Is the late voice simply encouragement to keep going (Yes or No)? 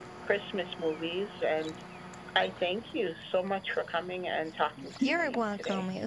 No